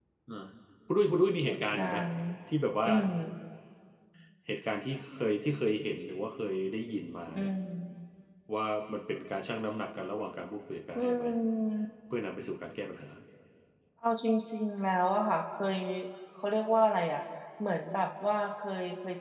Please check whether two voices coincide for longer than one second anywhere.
No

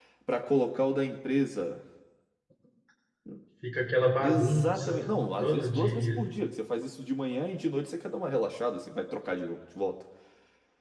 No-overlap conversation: No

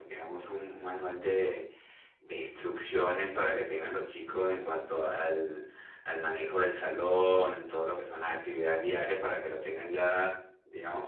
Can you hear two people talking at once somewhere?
No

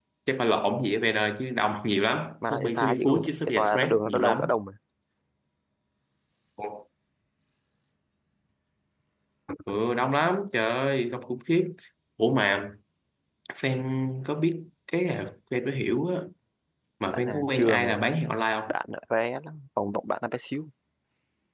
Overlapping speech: Yes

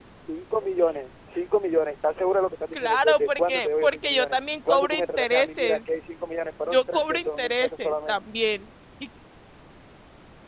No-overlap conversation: No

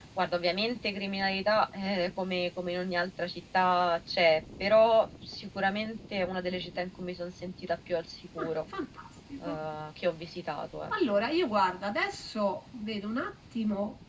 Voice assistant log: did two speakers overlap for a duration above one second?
No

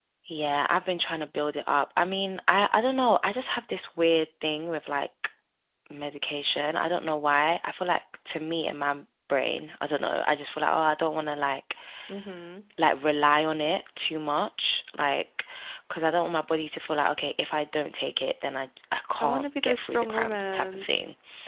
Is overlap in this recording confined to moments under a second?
No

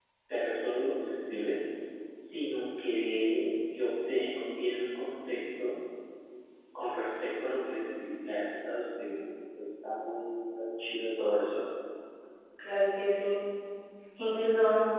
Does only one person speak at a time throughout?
Yes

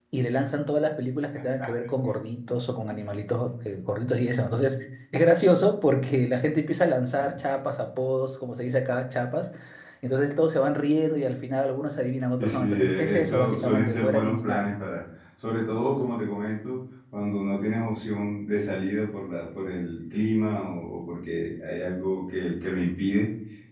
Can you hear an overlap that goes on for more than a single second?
Yes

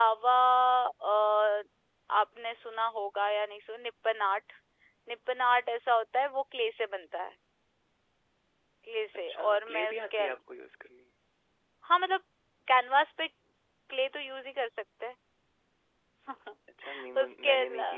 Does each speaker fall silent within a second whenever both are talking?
No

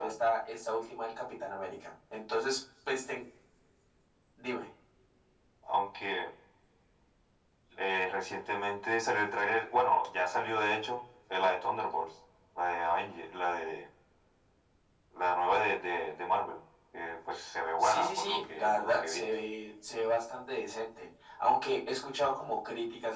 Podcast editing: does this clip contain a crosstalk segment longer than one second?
Yes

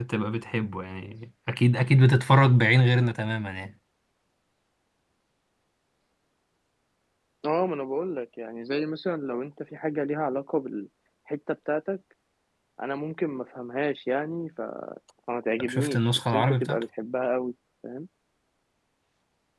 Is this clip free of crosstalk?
No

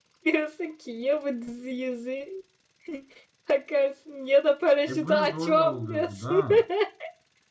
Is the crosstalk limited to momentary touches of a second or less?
No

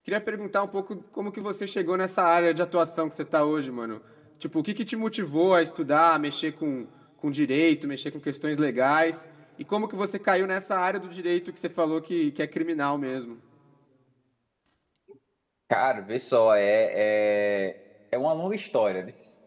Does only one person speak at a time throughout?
Yes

